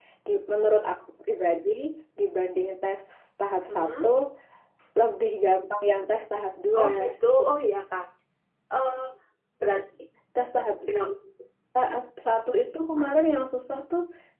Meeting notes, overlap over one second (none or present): none